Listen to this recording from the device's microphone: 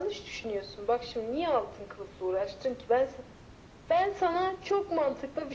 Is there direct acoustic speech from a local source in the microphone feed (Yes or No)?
No